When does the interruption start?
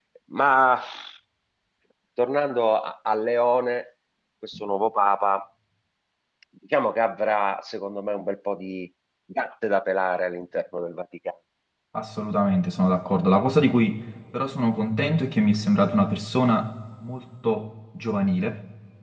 none

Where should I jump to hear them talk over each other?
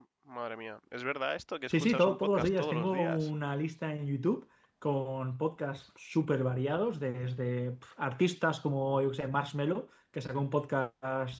1.7 s

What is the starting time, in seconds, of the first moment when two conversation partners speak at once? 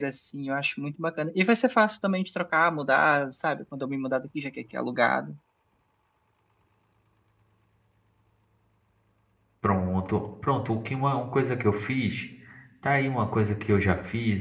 none

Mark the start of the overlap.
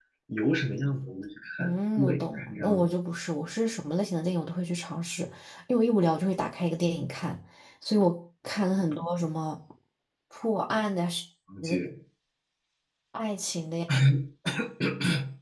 1.6 s

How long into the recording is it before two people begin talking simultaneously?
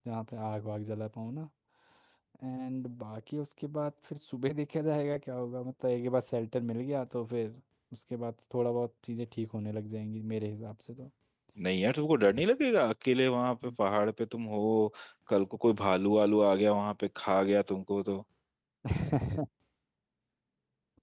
none

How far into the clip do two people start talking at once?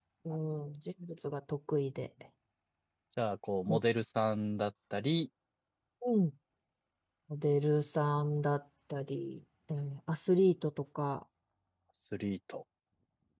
none

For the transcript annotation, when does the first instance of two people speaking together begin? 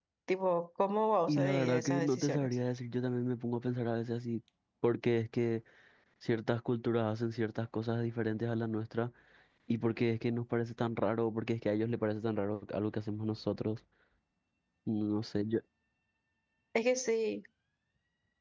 1.3 s

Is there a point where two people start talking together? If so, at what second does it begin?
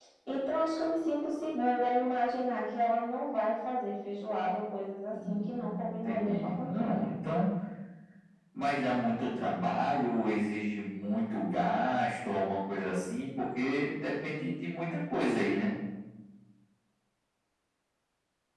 5.1 s

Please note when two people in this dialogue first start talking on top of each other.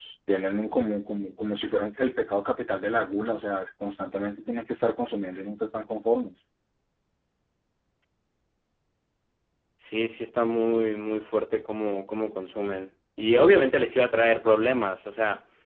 none

